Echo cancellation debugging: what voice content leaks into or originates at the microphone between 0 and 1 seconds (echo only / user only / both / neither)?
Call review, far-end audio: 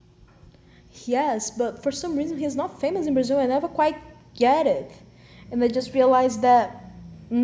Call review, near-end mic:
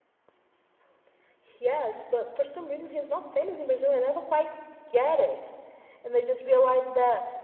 neither